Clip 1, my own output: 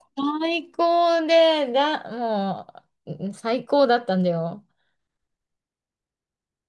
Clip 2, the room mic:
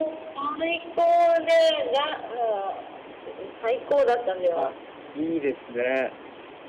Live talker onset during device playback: 4.5 s

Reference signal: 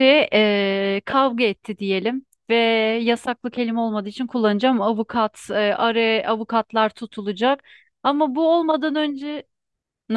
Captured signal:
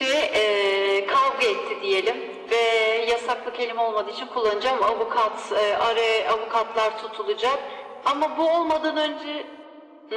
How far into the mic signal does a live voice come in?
none

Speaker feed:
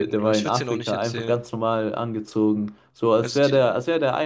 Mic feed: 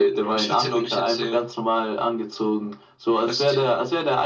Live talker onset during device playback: none

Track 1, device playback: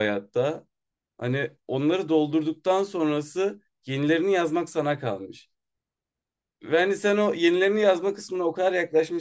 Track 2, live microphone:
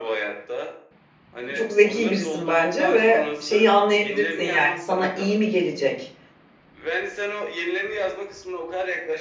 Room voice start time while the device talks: 1.5 s

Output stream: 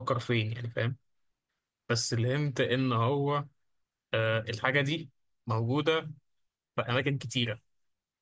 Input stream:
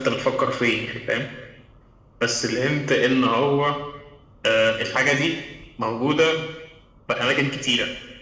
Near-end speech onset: none

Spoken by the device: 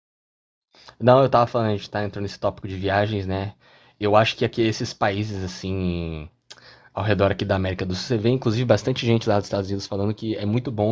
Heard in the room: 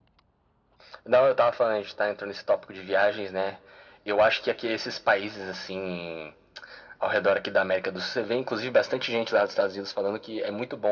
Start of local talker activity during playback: none

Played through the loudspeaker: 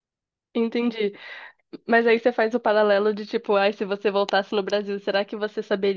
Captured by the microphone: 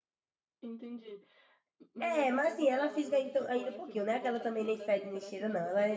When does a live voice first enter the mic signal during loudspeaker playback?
2.0 s

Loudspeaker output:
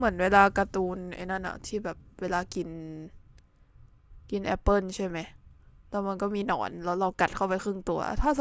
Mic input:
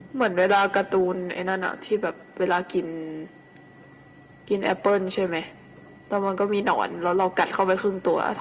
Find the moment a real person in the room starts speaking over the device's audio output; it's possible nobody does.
none

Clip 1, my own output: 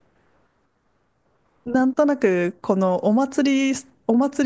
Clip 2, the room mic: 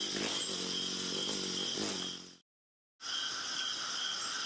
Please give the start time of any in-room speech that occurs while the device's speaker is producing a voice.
none

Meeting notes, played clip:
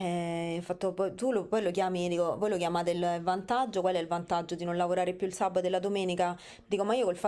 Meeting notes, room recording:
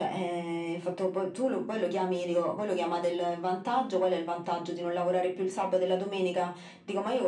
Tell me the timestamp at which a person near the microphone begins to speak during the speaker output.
none

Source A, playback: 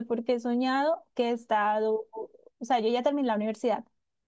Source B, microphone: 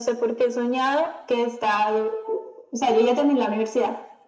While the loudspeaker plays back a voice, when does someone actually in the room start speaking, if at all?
none

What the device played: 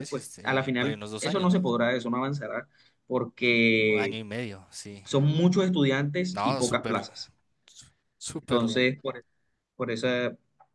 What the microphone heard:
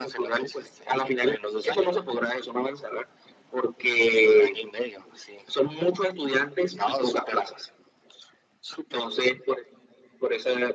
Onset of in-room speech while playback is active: none

